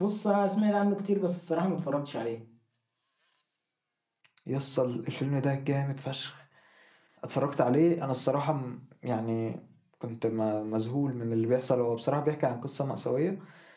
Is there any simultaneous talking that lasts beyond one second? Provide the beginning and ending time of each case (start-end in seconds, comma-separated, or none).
none